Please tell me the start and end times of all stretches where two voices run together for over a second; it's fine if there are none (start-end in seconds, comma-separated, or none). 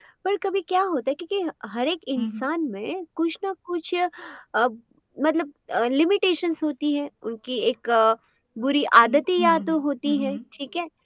9.0-10.4